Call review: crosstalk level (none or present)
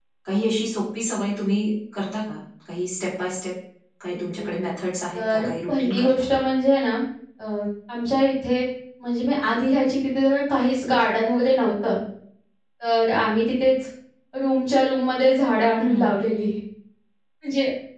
present